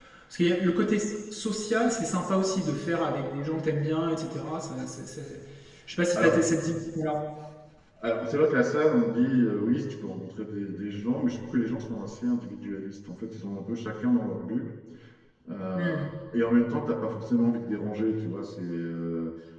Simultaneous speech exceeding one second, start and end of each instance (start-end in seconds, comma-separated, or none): none